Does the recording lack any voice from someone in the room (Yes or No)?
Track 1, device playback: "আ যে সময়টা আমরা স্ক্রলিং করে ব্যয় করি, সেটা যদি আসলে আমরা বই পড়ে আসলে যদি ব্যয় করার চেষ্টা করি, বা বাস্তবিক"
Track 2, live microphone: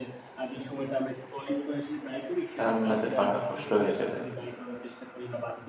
No